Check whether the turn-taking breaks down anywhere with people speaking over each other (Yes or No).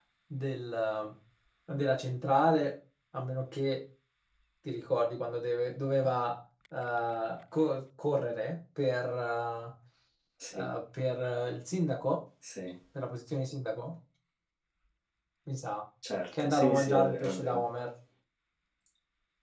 Yes